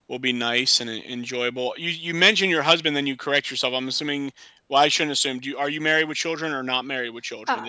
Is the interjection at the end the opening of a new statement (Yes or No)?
Yes